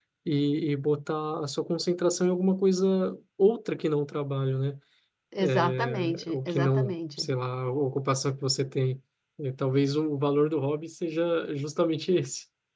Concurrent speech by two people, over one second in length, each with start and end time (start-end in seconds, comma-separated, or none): 5.4-7.3